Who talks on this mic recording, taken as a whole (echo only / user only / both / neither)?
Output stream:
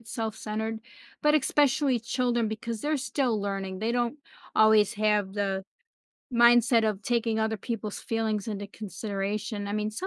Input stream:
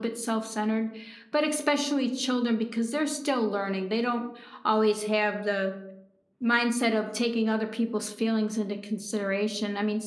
echo only